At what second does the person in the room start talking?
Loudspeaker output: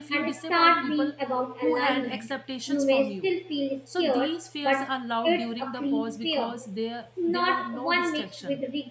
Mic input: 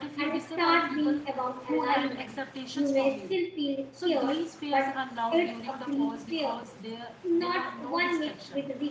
none

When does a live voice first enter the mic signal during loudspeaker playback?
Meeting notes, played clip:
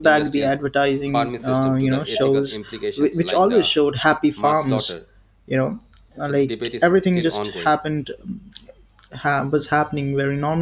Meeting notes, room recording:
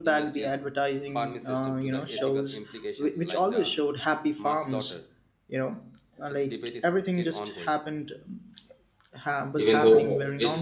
10 s

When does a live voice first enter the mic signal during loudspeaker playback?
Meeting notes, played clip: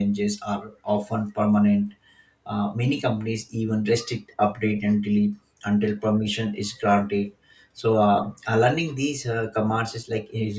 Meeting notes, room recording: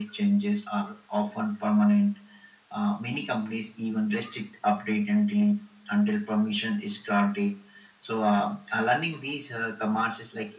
none

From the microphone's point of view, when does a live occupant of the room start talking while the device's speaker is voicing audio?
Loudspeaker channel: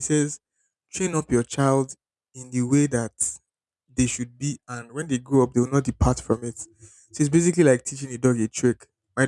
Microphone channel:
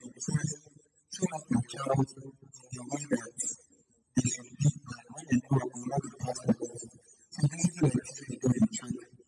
none

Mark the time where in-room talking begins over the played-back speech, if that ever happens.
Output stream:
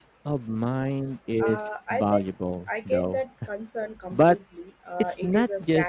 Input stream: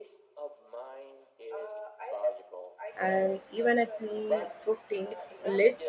3 s

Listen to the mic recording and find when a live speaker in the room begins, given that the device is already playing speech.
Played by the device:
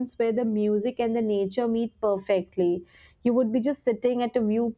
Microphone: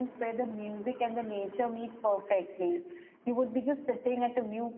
none

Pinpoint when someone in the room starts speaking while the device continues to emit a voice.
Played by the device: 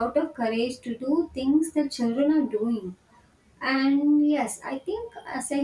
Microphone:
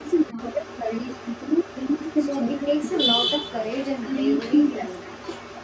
2 s

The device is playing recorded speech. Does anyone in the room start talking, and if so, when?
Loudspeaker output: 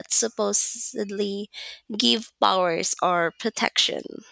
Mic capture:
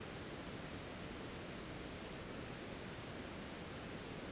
none

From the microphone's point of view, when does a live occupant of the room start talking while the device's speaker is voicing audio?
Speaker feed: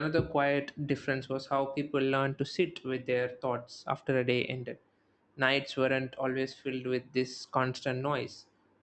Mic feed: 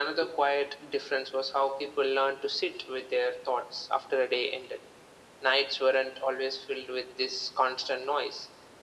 none

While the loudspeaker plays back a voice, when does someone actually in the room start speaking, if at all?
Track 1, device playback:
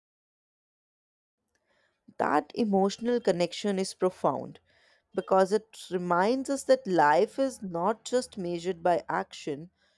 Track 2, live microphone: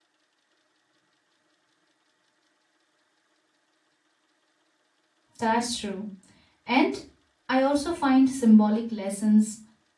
5 s

